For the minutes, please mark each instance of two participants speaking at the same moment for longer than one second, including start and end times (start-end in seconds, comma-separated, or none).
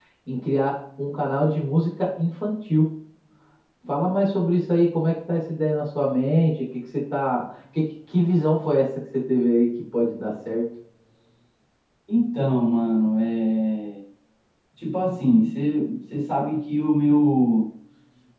none